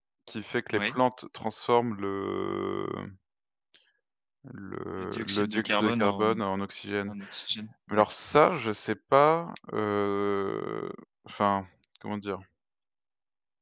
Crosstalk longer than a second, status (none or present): present